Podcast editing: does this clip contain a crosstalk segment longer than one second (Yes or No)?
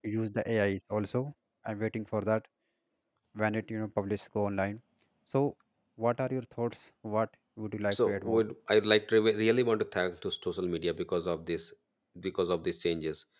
No